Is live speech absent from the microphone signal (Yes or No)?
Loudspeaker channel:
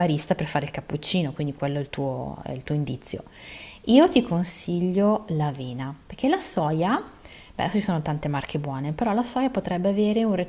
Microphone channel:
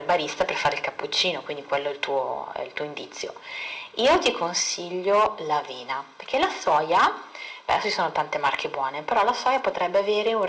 Yes